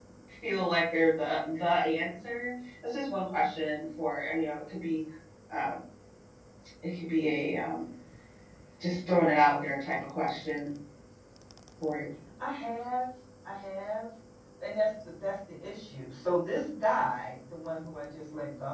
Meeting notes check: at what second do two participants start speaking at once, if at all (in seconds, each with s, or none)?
none